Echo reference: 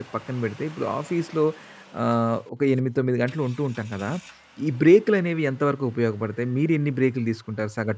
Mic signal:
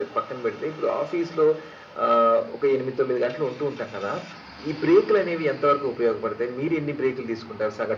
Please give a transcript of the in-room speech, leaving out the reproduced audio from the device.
none

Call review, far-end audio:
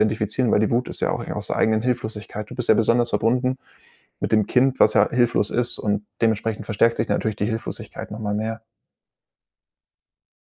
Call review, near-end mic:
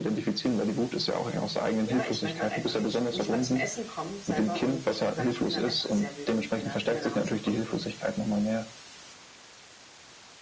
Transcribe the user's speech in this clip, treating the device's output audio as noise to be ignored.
ja, ich manchmal einfach ich k nicht mal zum Essen komme selber und ich glaube, ich bin dann einfach sehr wütend, wenn er wenn er nach Hause kommt. Und

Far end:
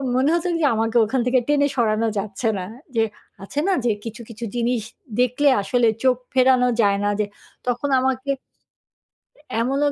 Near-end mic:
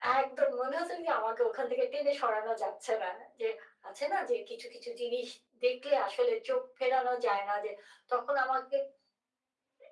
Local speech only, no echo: none

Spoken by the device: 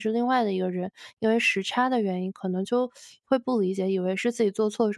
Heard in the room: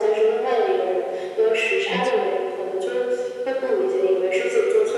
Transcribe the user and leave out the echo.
没错。

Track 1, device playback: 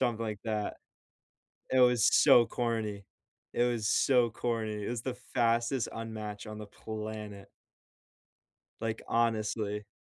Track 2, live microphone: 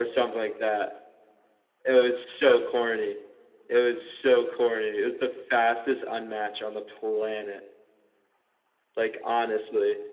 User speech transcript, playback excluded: none

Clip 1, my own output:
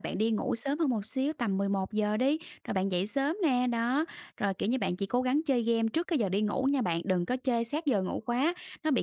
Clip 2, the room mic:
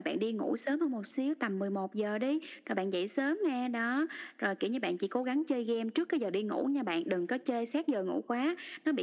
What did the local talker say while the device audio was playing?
none

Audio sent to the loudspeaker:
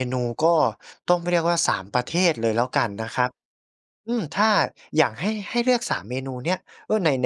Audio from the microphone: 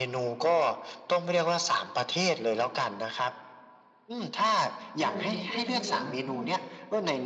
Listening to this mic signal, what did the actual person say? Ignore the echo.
ได้เลย มันก็เลยทำให้แบบว่า โอ้

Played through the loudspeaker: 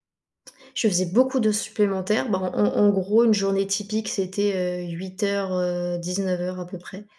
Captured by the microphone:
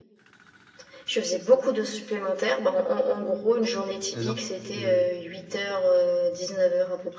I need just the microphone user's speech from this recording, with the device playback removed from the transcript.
Alors, heu

